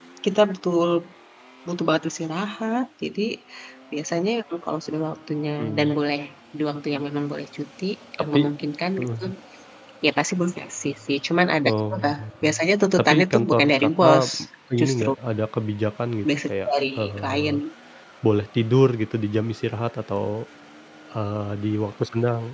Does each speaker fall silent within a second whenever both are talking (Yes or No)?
No